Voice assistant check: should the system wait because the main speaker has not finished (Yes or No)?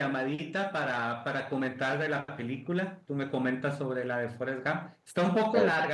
Yes